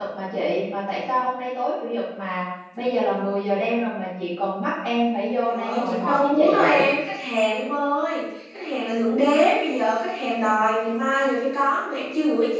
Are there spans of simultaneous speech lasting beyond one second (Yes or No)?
Yes